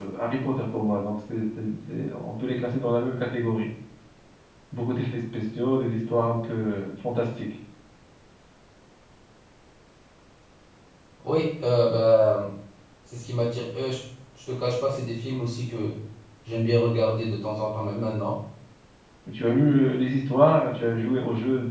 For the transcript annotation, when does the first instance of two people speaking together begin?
none

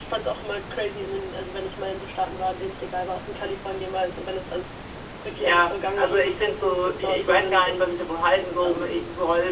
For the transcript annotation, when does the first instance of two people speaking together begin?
5 s

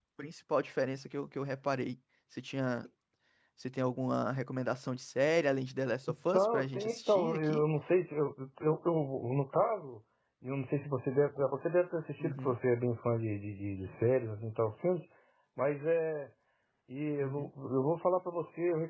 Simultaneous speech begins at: 6 s

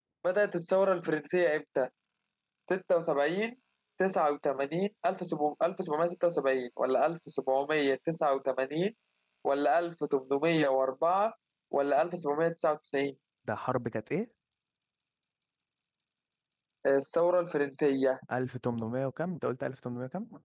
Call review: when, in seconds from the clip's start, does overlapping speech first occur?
none

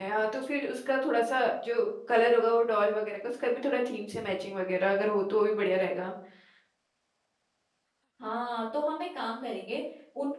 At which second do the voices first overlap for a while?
none

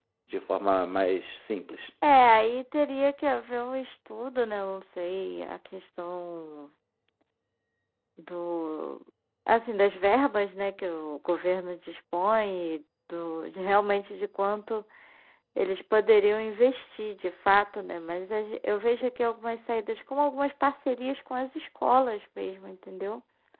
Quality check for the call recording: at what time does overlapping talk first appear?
none

